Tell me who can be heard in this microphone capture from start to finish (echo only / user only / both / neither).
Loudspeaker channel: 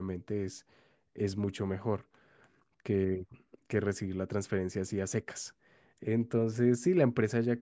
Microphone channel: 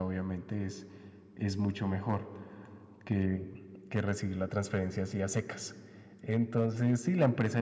echo only